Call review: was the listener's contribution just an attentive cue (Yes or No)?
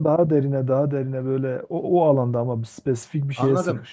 No